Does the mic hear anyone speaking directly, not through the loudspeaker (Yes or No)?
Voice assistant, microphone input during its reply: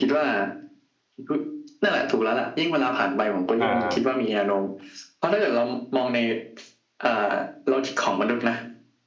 Yes